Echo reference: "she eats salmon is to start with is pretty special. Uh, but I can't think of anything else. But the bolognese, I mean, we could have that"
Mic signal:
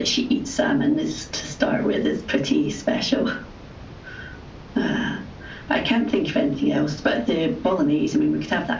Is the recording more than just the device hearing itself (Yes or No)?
No